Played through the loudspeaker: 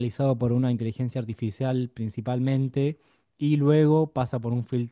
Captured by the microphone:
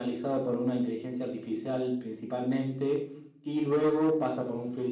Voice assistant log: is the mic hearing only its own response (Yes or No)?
Yes